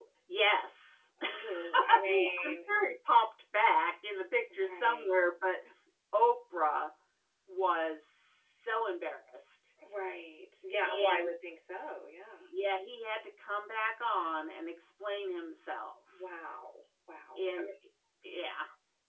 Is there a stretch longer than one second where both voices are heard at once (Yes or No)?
Yes